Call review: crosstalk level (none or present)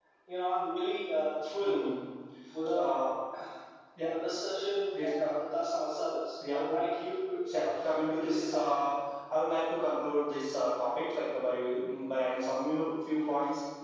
present